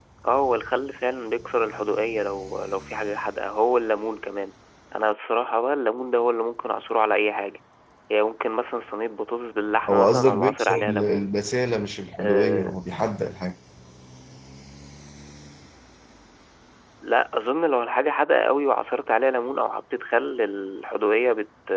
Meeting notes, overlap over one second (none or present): present